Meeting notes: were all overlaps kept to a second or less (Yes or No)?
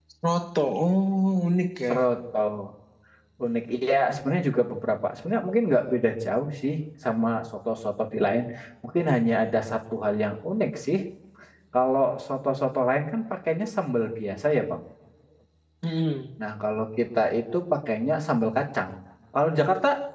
Yes